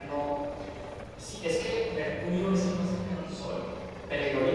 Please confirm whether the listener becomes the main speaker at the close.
No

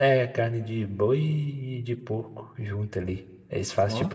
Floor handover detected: No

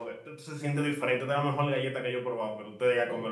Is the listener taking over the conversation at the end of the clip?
Yes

